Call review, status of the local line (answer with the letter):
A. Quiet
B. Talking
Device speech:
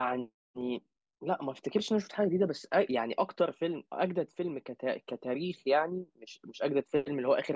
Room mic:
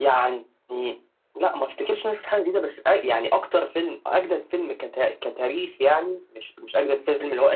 A